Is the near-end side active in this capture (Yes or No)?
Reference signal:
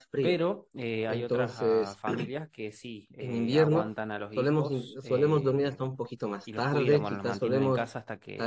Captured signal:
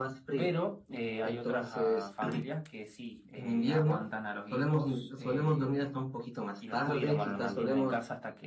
Yes